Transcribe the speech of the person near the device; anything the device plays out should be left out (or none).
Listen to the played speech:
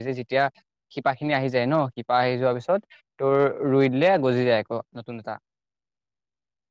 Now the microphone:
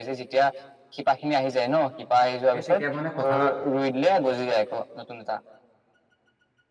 এই তেতিয়া মানে কঁঠালৰ